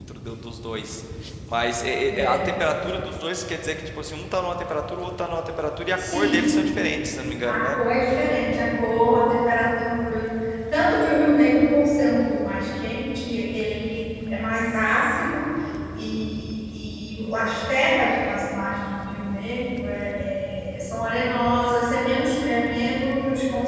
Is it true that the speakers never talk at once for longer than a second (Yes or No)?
Yes